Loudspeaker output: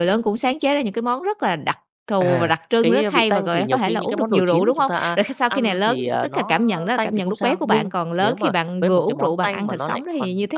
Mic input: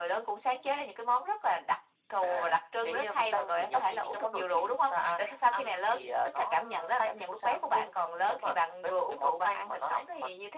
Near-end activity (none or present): none